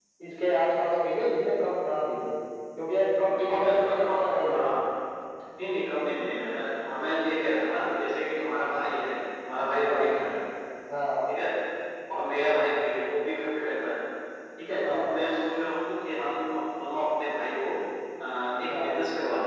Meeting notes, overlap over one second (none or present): present